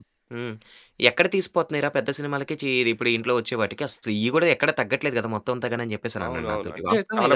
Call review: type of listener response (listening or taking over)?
taking over